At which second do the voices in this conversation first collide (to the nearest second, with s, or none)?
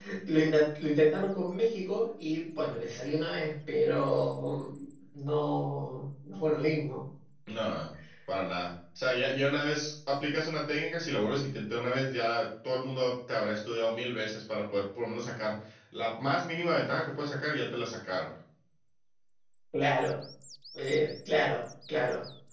none